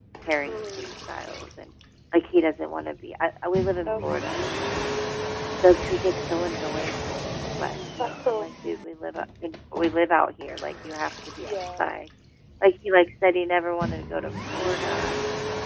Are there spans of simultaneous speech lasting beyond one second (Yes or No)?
No